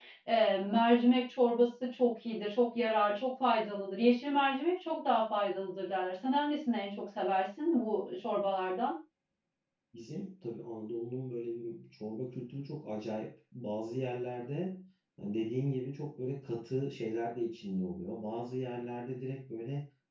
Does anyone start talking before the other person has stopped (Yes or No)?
No